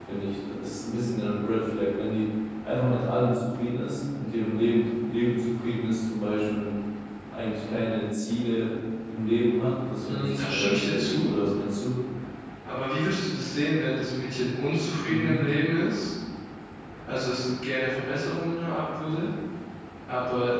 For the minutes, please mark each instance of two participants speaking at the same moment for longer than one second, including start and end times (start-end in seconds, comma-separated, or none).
10.1-11.3